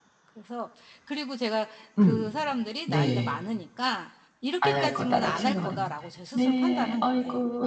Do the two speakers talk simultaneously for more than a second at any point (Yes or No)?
Yes